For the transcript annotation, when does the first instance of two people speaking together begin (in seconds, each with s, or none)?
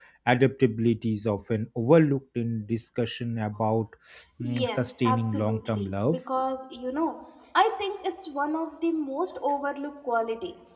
4.4 s